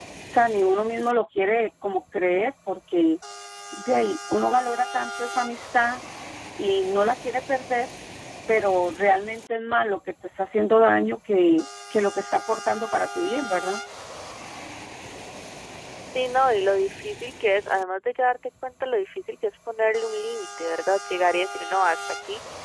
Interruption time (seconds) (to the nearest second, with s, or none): none